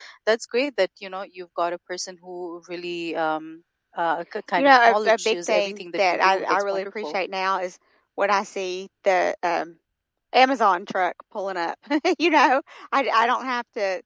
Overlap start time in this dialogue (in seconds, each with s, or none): 4.6 s